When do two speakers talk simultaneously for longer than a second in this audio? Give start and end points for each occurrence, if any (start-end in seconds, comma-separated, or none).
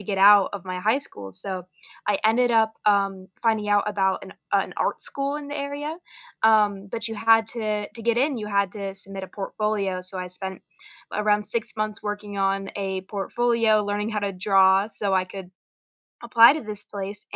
none